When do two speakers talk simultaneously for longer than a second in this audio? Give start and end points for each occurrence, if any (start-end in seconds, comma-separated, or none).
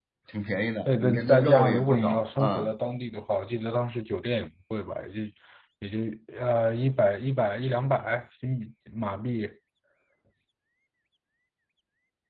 0.9-2.7